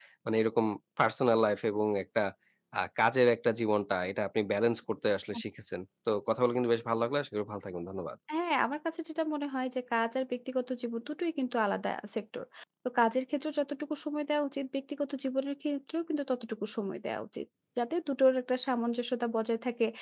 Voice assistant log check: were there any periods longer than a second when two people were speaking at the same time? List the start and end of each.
none

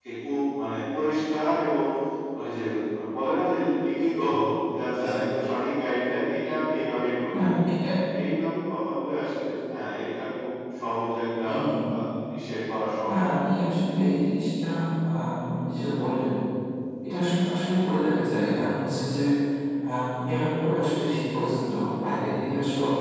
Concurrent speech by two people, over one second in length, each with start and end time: none

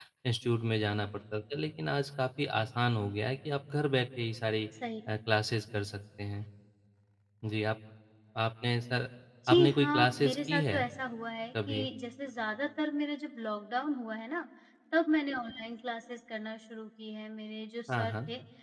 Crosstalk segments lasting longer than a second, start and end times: 9.5-10.8

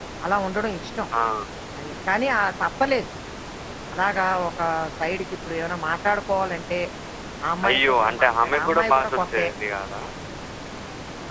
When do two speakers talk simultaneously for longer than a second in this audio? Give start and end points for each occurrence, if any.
7.7-9.5

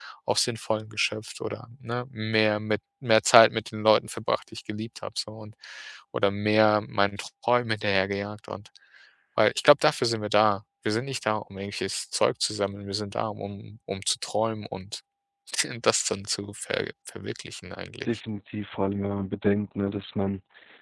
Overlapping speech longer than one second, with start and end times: none

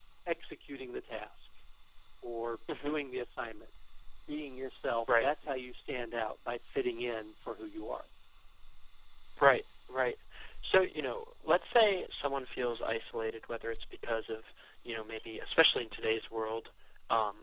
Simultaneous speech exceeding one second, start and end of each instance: none

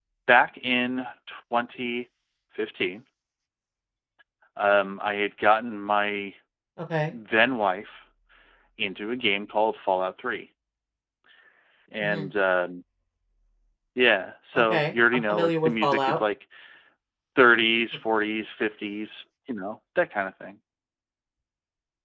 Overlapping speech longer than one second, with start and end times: 14.6-16.2

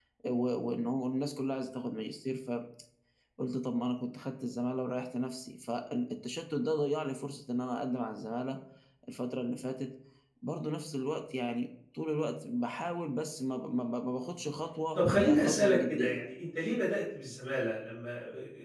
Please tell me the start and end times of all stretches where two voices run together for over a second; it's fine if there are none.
15.0-16.2

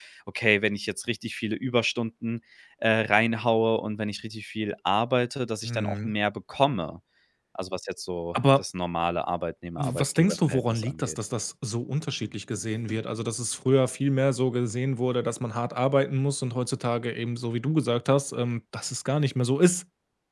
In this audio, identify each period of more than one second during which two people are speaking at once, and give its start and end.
9.8-11.2

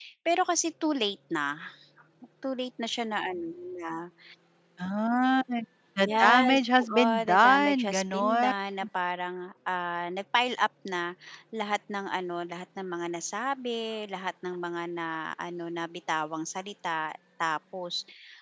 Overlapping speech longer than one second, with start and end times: 6.0-8.5

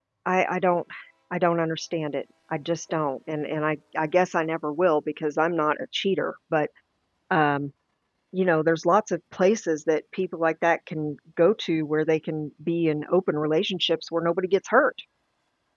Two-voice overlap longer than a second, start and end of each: none

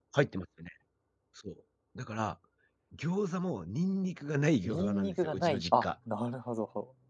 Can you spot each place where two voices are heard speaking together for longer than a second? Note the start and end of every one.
4.6-5.8

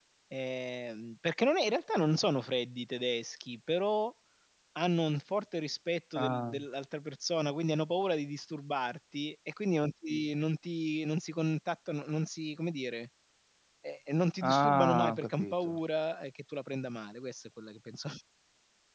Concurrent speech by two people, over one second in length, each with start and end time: 14.4-15.8

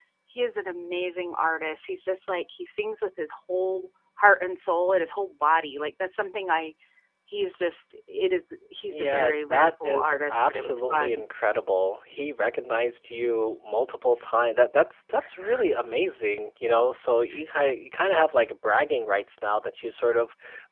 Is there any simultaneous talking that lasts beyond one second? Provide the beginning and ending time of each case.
8.9-11.2

